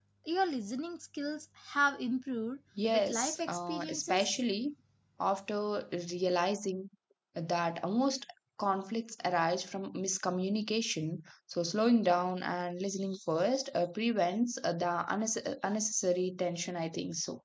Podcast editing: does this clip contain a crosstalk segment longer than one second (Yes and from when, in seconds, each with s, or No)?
Yes, from 2.8 s